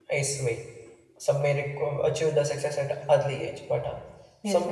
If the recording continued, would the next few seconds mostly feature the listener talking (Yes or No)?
Yes